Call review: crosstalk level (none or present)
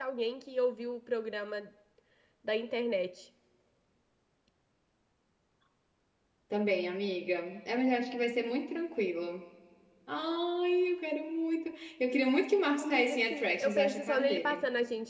present